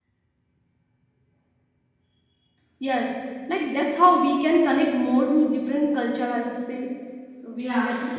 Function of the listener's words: taking over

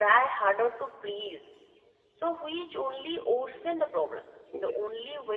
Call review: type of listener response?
listening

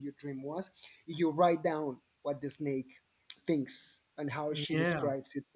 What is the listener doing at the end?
listening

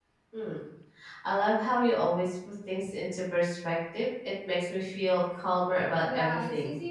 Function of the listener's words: taking over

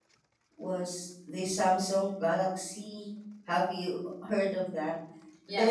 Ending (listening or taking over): taking over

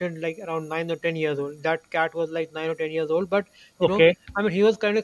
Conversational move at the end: listening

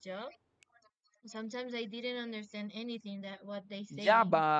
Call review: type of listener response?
taking over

